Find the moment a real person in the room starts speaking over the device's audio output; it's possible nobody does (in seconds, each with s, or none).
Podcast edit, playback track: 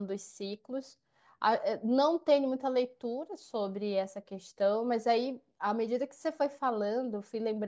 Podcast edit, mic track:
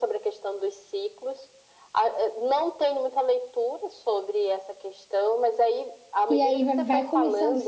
6.3 s